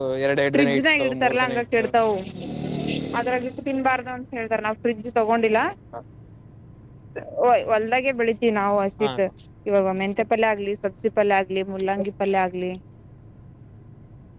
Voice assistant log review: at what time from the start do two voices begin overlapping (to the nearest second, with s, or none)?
1 s